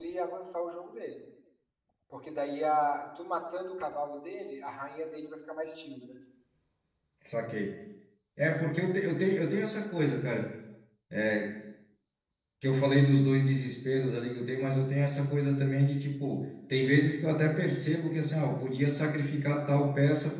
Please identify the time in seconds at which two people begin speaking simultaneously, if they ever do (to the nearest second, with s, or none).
none